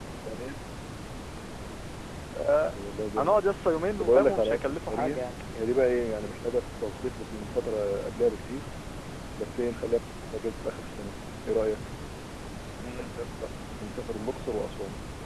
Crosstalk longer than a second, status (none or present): present